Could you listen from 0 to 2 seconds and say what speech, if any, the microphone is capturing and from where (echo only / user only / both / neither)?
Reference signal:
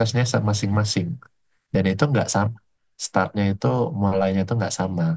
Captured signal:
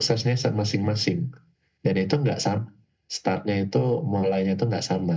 echo only